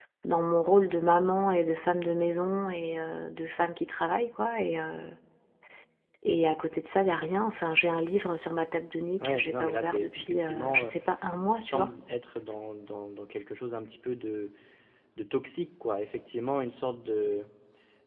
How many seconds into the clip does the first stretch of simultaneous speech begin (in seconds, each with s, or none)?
9.2 s